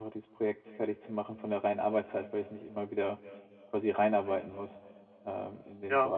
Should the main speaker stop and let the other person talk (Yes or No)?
Yes